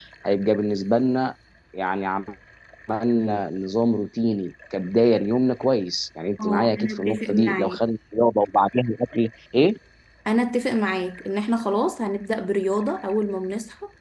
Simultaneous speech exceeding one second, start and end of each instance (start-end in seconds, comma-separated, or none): 6.4-7.8